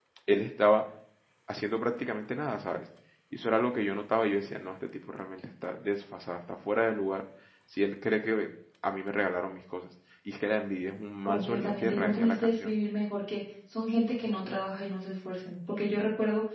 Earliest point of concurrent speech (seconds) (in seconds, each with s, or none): 11.2 s